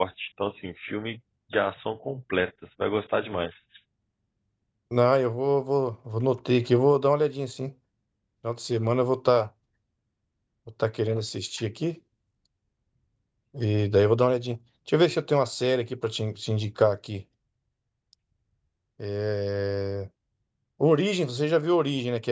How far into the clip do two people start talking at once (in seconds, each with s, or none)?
none